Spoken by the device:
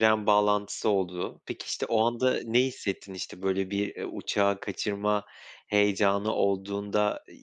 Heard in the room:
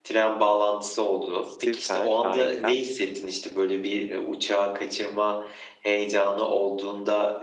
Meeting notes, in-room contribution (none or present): present